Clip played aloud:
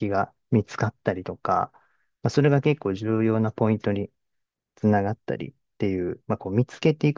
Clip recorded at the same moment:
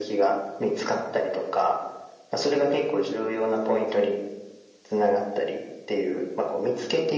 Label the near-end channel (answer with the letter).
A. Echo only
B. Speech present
A